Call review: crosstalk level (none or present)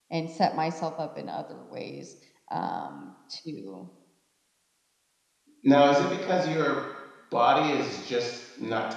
none